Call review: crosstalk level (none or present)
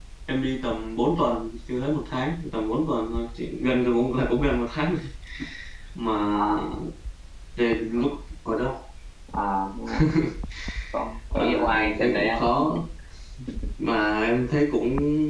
present